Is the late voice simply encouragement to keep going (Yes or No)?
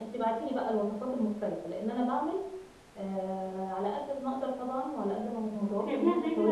No